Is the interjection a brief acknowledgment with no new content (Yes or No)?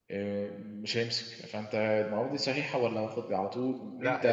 No